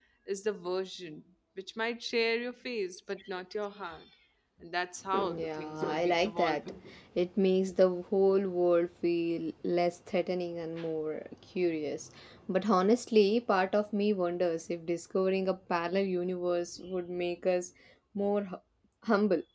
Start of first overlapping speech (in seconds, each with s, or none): 5.1 s